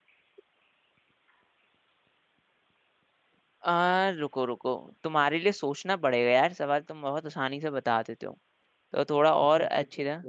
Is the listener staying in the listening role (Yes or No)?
No